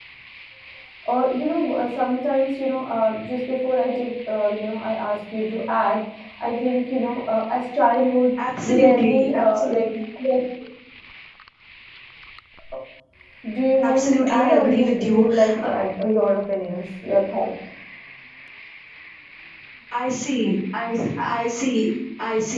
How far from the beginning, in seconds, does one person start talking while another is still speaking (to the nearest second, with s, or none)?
9 s